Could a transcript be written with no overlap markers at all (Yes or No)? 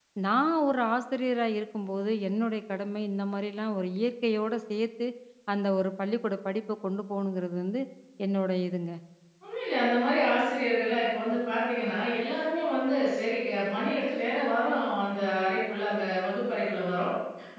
Yes